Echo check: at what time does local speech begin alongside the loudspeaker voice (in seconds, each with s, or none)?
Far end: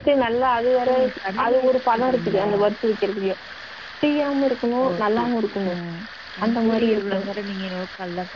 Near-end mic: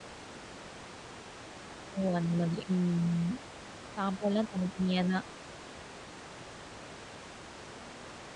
1.9 s